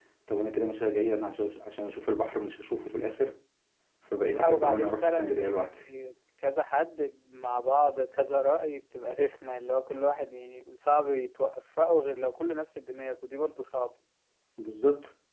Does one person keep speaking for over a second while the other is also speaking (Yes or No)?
Yes